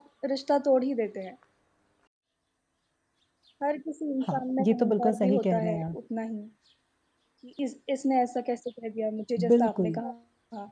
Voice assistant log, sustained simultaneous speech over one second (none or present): present